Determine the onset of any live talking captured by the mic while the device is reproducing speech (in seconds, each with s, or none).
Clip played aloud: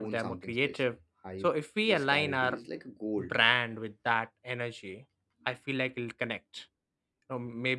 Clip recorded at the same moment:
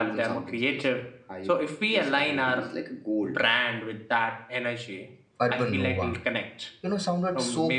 5.4 s